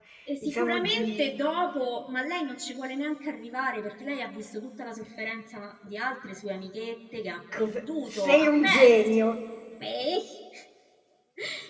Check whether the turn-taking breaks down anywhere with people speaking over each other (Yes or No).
Yes